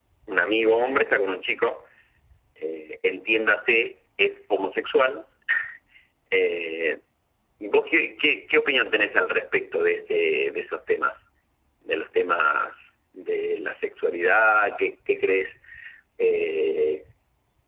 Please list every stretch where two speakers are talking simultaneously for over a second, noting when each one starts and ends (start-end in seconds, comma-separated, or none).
none